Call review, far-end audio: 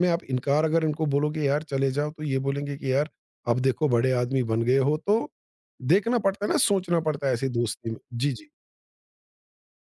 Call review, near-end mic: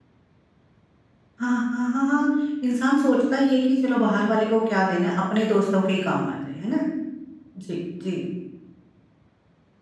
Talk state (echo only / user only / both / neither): user only